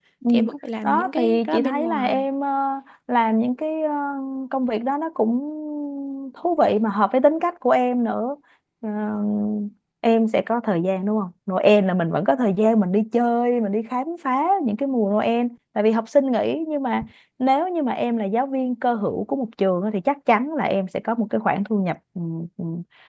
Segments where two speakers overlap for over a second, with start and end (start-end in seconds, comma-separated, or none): 0.8-2.3